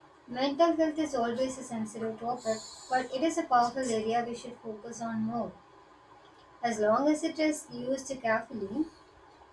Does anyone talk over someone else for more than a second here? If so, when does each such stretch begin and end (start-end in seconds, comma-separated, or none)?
none